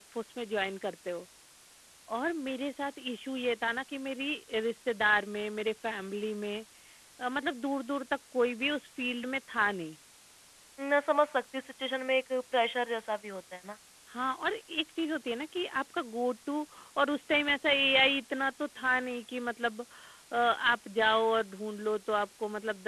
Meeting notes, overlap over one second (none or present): none